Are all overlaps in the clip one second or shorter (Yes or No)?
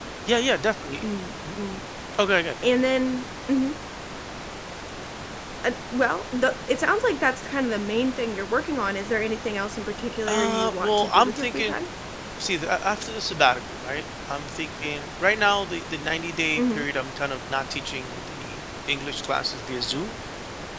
No